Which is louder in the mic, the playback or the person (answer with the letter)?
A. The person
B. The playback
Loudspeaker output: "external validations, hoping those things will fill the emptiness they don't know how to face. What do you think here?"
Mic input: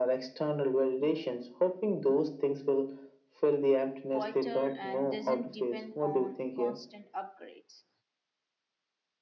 B